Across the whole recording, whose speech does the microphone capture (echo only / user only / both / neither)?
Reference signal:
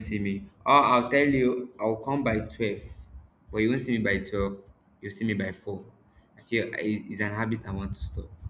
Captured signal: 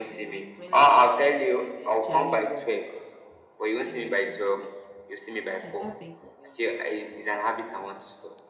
both